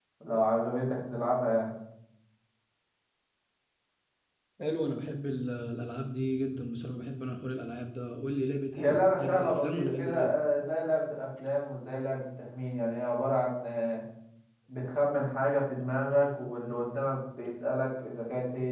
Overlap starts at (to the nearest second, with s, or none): 9 s